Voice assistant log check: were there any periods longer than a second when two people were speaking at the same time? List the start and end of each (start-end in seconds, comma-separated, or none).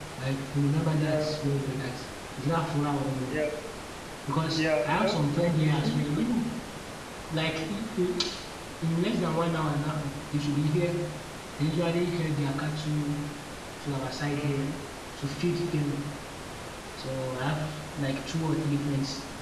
4.6-6.2